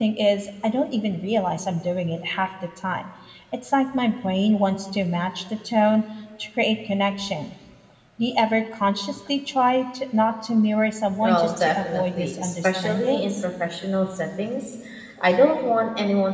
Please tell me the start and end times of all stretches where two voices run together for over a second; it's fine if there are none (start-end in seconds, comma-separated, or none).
11.2-13.3